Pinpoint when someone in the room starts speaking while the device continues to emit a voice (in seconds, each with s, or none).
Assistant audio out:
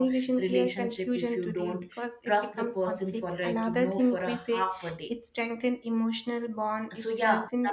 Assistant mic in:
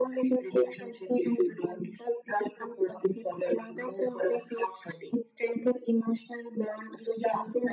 none